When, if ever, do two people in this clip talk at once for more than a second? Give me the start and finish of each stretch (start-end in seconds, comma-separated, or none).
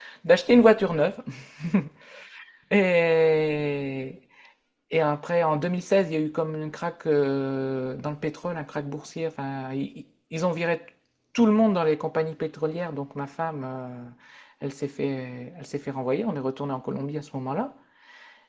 none